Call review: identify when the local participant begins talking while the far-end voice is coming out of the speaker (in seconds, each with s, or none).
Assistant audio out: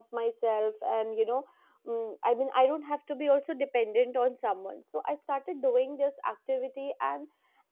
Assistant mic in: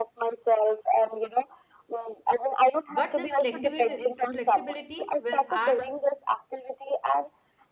2.9 s